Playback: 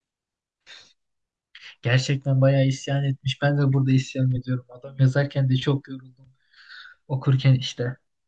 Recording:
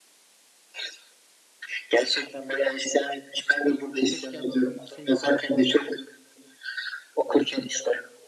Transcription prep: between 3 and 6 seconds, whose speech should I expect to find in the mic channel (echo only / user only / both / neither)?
both